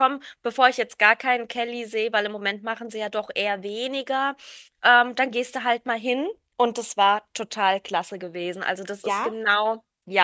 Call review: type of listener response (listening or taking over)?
listening